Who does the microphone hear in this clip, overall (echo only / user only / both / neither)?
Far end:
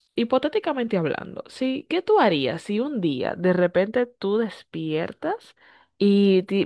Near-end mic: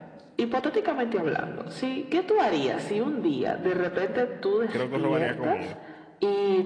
both